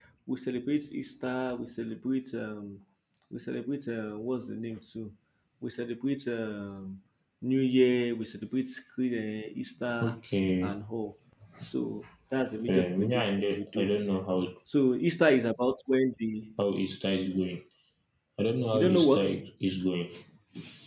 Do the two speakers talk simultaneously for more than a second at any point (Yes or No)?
Yes